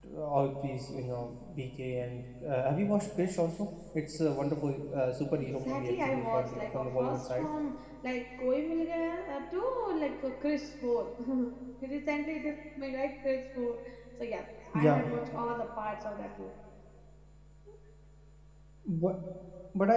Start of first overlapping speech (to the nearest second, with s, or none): 5 s